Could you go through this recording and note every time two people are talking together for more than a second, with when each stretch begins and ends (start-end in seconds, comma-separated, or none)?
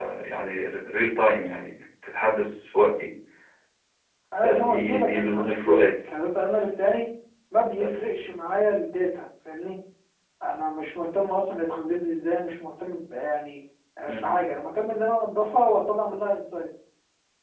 4.4-6.0